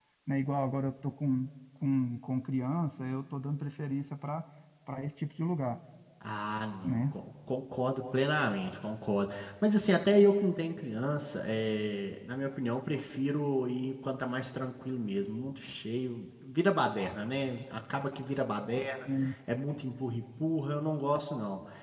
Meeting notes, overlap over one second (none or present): none